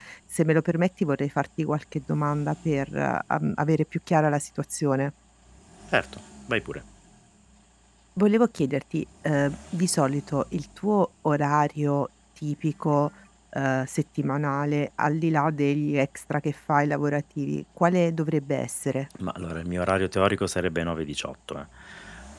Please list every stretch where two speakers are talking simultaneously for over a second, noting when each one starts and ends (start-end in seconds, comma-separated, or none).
none